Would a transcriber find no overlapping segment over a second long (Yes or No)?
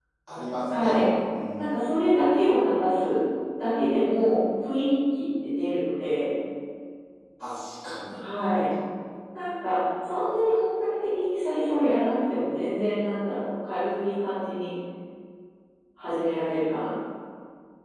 Yes